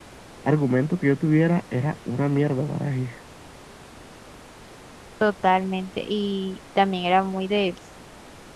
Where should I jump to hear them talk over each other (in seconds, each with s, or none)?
none